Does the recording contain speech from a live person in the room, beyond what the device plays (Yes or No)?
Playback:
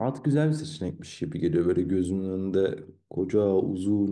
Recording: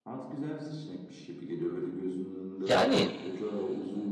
Yes